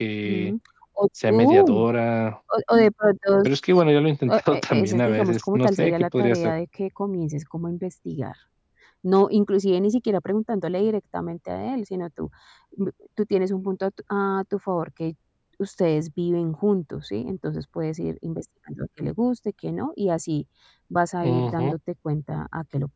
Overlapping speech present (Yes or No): Yes